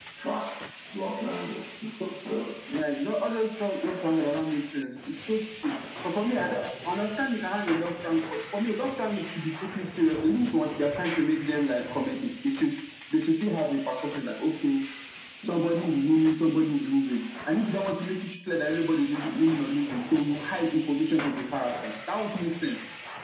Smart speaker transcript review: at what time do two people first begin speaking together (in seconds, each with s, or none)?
none